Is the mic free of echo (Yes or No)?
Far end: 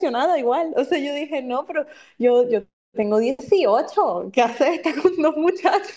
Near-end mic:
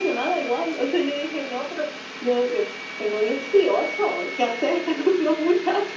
No